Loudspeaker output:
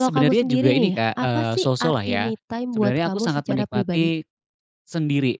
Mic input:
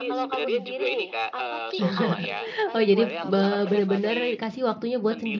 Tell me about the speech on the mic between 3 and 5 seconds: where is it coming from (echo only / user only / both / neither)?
both